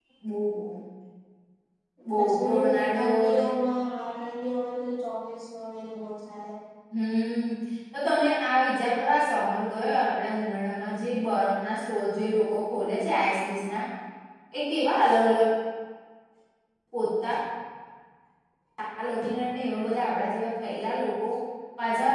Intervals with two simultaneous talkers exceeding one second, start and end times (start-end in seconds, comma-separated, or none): 2.2-3.4